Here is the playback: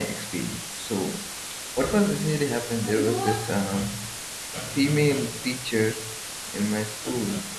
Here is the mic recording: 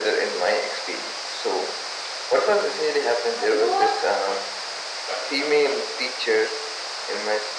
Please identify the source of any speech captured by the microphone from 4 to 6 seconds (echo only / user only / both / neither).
echo only